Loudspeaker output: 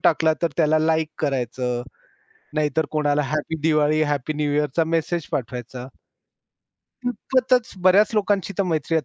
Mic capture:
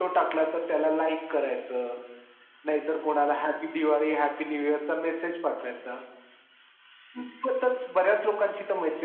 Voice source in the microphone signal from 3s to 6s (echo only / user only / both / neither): echo only